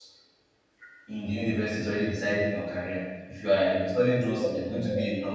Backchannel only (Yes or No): Yes